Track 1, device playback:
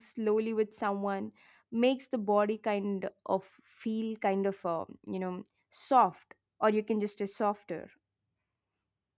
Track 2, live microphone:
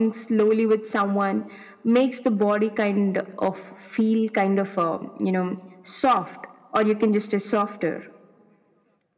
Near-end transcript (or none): none